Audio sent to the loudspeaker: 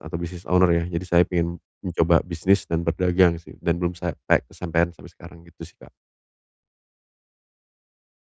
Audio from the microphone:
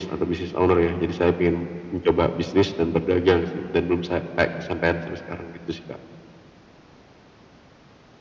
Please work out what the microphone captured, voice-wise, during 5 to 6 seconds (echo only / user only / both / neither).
echo only